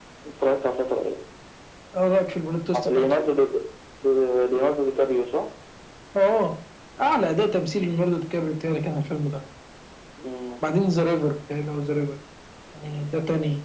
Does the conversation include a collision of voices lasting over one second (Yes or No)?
No